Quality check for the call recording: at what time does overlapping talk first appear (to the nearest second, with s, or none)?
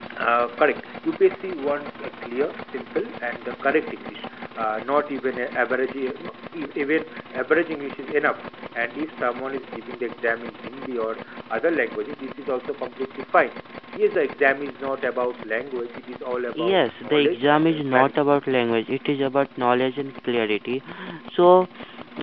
17 s